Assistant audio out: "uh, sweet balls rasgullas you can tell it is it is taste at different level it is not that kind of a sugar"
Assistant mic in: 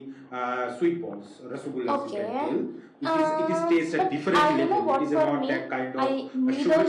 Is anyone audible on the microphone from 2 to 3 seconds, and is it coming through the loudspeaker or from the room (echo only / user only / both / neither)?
both